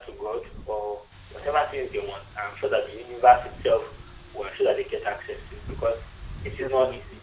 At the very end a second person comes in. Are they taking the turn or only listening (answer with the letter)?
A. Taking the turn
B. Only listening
B